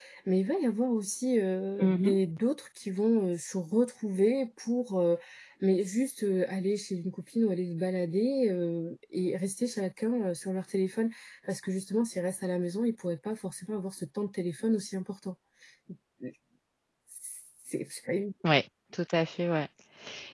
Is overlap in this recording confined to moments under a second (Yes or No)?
Yes